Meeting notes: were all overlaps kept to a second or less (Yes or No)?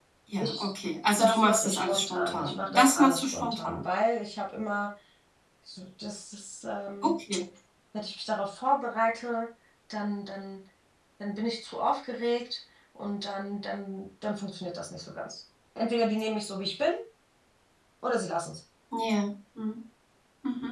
No